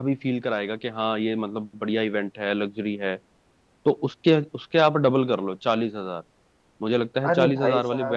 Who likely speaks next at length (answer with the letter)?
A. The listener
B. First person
A